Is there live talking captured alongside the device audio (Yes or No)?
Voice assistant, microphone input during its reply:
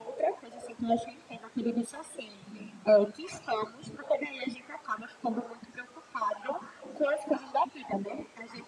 No